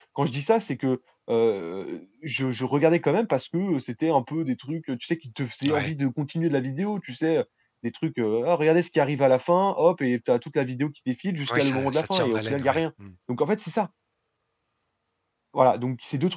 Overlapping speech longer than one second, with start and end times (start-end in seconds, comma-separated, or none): 11.5-12.8